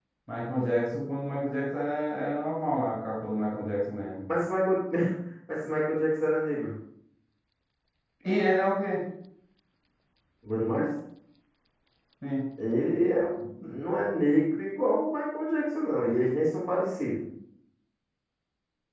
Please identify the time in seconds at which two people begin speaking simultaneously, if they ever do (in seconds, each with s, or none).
none